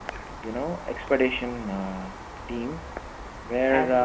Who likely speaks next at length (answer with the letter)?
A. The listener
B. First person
B